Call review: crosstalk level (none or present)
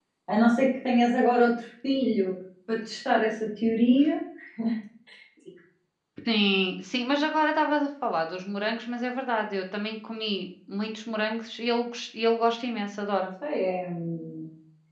none